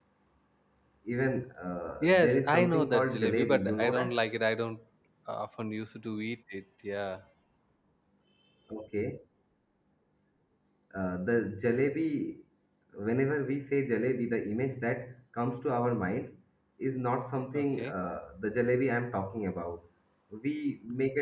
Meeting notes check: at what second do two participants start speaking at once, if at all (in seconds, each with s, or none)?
2.0 s